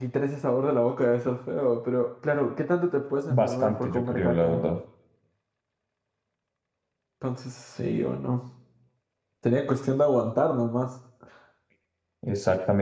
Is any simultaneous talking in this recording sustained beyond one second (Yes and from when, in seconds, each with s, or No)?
Yes, from 3.3 s